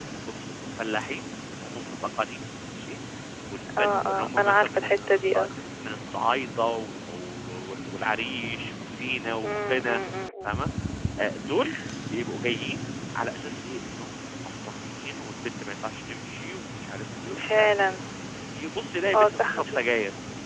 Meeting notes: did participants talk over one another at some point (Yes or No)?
Yes